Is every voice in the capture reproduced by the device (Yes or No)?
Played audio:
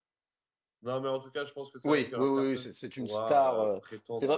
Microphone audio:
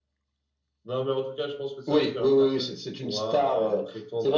Yes